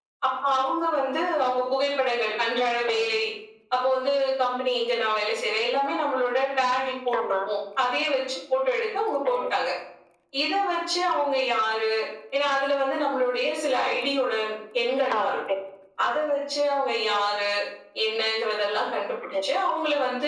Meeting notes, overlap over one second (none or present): none